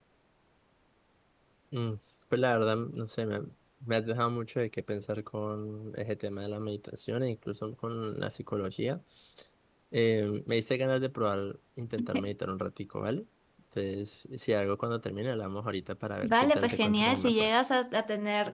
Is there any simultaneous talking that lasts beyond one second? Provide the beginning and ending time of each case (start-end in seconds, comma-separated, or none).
16.2-17.5